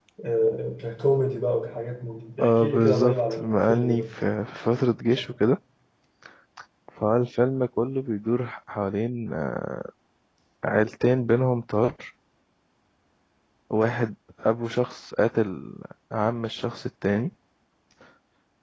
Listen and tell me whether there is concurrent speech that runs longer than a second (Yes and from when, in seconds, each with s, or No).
Yes, from 2.4 s